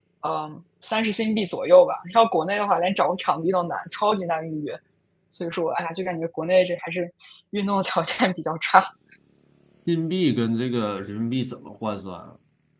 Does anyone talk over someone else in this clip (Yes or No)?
No